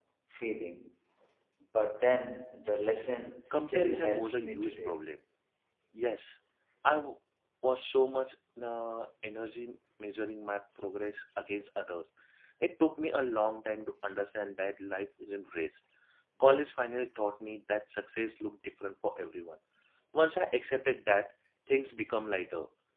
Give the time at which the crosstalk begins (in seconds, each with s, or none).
3.5 s